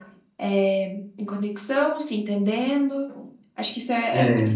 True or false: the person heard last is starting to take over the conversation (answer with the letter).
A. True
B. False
B